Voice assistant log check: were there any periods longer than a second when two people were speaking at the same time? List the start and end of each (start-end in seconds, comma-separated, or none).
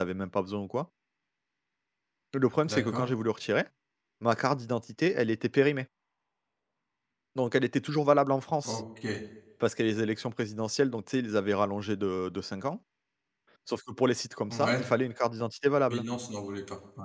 none